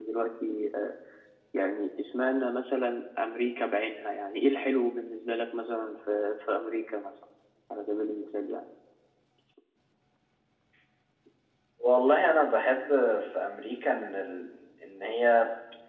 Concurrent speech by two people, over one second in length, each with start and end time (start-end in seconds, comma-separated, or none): none